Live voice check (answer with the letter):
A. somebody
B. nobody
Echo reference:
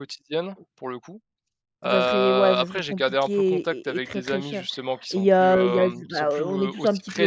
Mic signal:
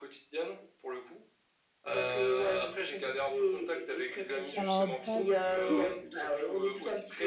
A